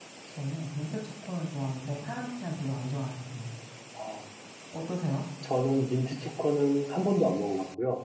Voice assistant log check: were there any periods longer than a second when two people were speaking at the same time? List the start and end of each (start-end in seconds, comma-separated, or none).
none